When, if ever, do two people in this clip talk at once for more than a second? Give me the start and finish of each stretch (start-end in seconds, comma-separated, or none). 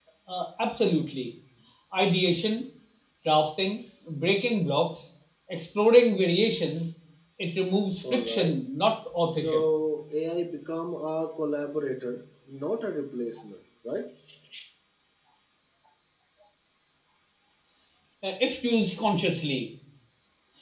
none